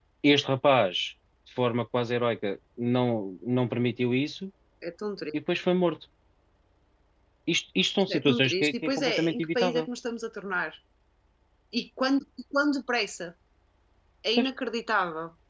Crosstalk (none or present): present